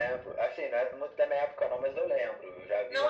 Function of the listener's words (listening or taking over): taking over